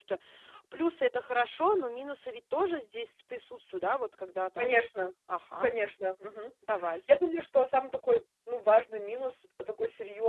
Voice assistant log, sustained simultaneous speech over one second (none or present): none